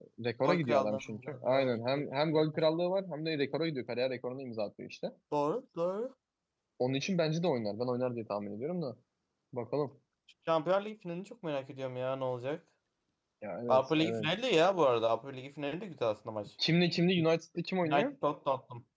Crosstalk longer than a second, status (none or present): present